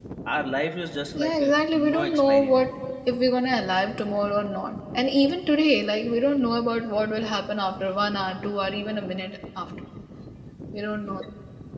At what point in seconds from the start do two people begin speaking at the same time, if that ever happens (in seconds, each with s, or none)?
1.2 s